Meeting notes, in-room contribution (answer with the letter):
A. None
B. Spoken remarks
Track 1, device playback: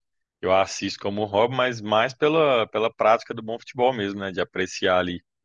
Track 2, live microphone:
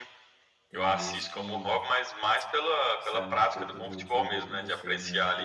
B